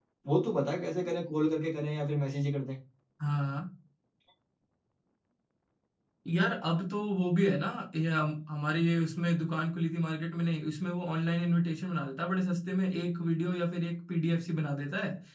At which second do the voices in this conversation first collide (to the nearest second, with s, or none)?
none